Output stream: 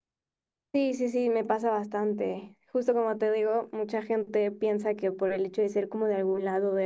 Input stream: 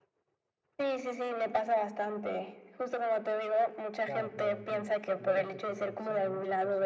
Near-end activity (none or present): present